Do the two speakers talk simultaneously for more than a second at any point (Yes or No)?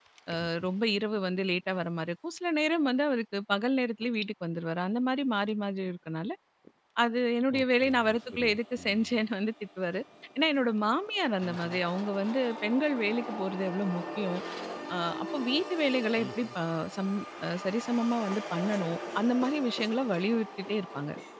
Yes